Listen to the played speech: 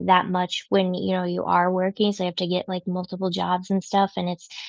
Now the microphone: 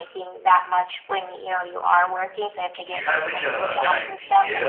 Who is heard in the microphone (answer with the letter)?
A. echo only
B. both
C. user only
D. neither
B